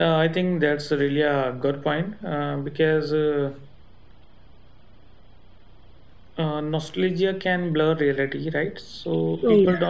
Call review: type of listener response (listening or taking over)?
listening